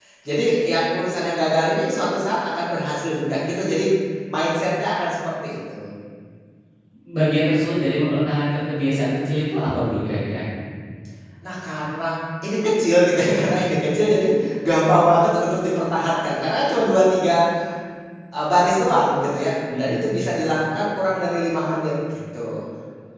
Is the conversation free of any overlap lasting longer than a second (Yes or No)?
Yes